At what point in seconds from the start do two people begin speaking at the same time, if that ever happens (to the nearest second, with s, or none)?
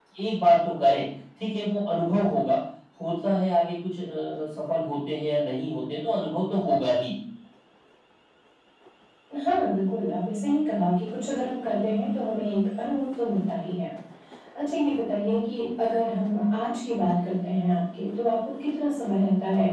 none